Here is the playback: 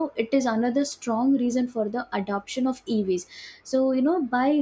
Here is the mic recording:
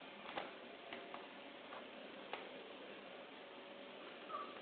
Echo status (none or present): none